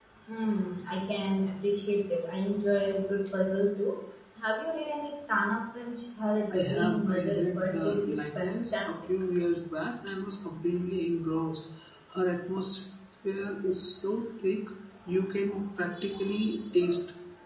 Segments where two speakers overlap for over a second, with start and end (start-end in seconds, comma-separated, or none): 6.5-9.0